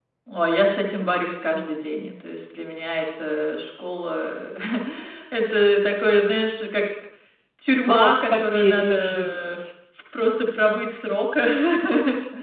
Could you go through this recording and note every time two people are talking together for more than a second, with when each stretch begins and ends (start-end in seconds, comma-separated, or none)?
7.9-9.6